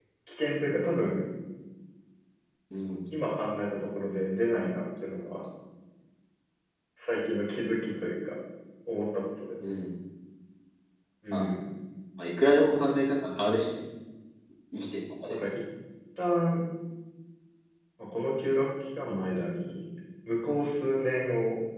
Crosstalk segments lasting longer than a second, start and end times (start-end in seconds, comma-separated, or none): none